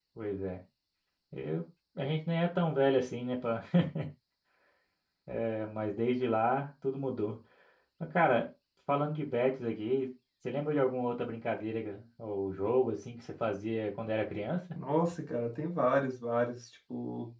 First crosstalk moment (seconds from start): none

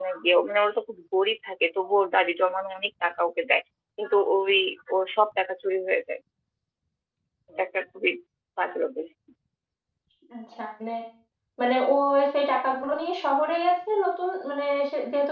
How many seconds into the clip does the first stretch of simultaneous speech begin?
none

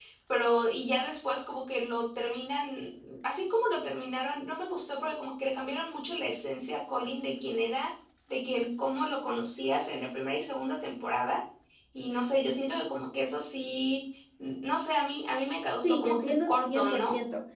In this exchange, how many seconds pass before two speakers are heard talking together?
15.8 s

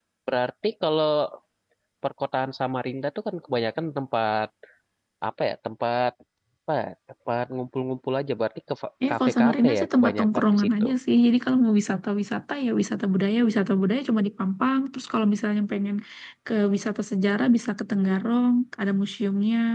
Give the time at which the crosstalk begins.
9.1 s

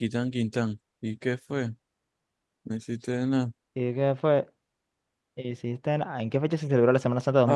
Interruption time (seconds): none

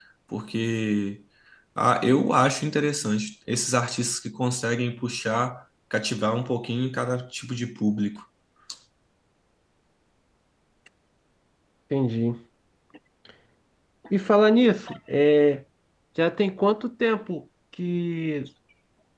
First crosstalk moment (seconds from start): none

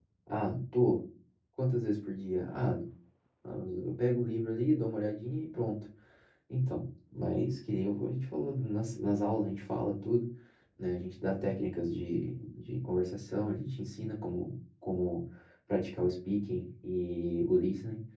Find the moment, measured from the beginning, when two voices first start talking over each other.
none

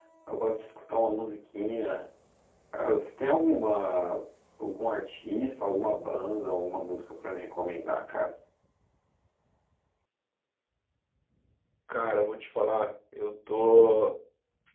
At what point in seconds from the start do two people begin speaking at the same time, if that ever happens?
none

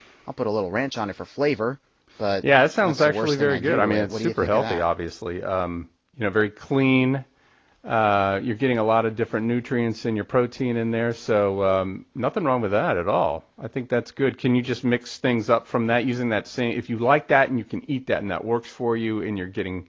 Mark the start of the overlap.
2.8 s

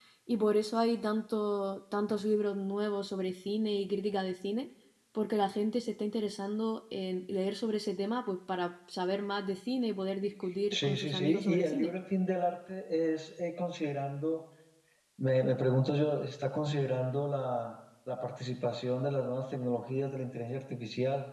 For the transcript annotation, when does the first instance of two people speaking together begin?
10.7 s

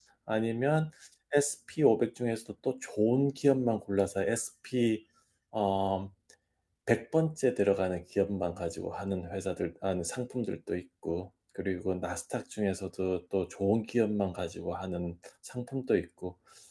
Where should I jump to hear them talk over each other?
none

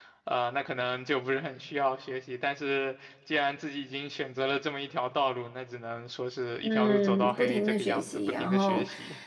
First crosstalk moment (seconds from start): 6.6 s

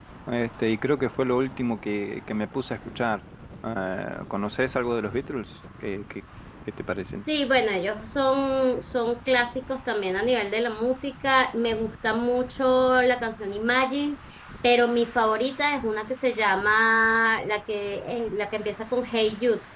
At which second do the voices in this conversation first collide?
none

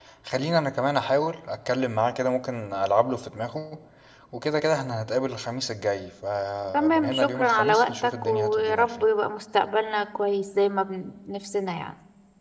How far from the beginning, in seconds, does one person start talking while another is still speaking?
6.7 s

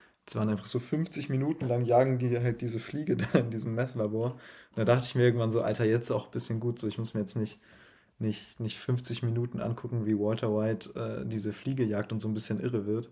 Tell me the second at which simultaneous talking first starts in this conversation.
none

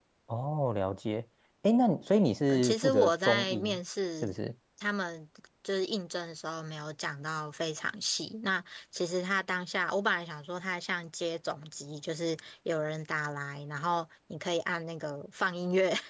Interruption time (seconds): 2.5 s

